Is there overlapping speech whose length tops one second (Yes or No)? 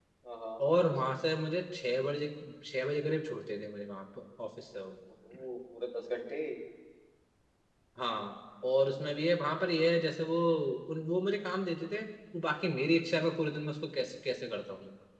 No